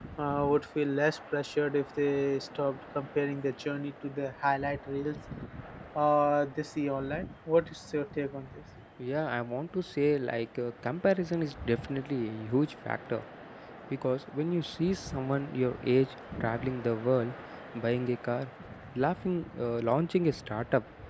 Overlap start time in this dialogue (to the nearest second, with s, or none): none